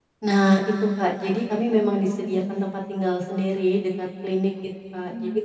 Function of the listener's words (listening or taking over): listening